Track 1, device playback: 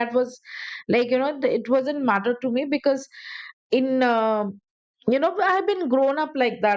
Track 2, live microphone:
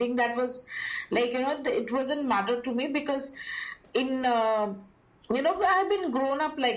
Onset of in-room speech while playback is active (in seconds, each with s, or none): none